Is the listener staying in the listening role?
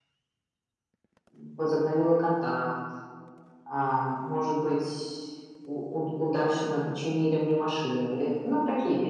No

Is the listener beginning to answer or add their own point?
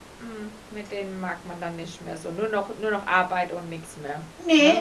Yes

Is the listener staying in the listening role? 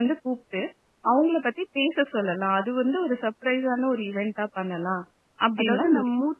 No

